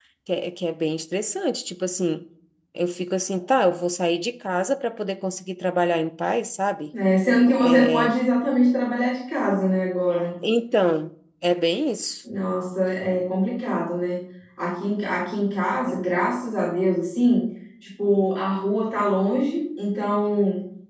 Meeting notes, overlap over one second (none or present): none